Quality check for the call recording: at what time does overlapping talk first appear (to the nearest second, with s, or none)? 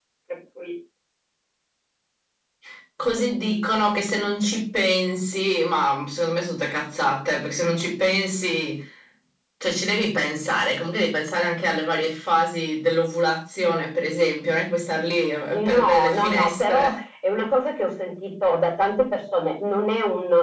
16 s